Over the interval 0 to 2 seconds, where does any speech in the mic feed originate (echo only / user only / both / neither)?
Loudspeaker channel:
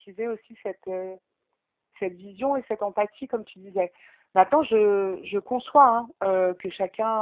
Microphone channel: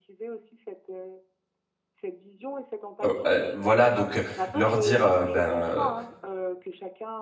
echo only